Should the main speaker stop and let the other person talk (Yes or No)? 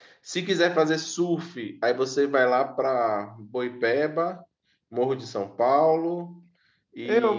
Yes